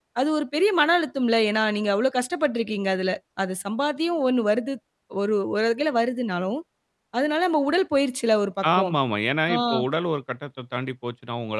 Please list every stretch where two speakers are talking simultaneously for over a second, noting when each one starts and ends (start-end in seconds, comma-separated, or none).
none